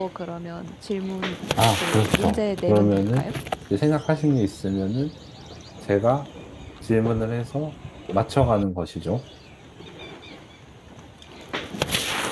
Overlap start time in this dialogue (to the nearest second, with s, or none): 2 s